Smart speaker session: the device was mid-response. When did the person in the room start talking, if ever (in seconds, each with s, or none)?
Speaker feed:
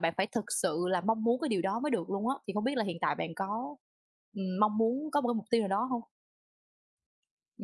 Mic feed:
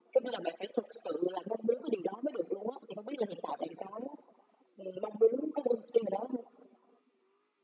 none